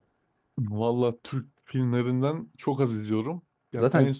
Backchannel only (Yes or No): Yes